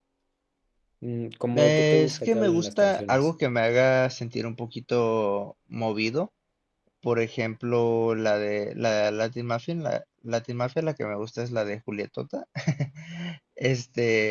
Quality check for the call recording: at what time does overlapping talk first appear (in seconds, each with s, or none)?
1.5 s